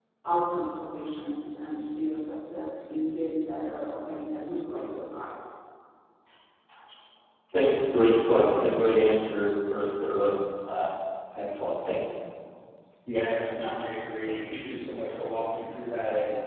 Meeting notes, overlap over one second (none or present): none